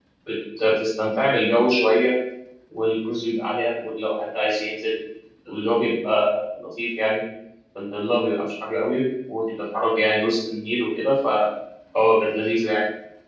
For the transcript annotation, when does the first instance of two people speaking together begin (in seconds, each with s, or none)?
none